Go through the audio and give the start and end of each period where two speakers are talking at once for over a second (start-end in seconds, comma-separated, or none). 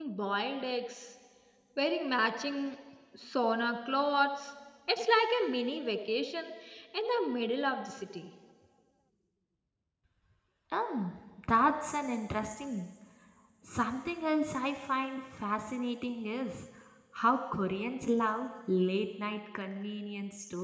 none